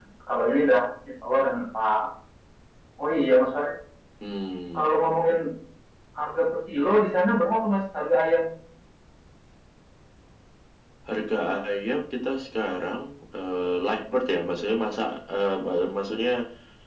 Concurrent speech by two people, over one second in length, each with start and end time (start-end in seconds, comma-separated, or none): none